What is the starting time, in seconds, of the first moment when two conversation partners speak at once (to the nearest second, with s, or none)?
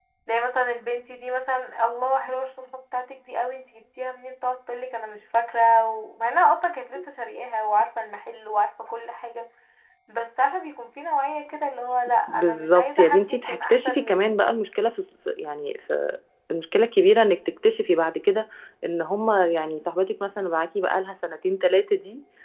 12 s